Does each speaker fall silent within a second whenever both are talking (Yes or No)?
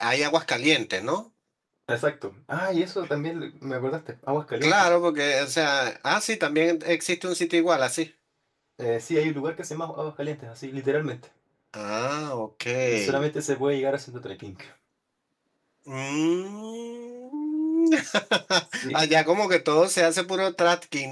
Yes